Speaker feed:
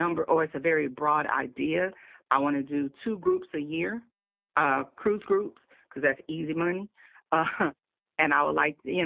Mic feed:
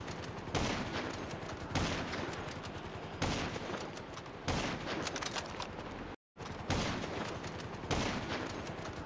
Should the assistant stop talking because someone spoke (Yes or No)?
No